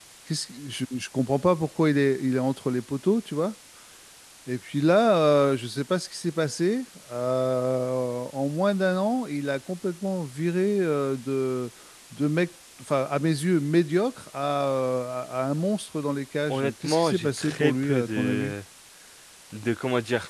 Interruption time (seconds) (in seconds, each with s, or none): 16.5 s